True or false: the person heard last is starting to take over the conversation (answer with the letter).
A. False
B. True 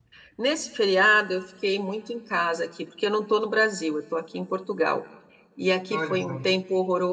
A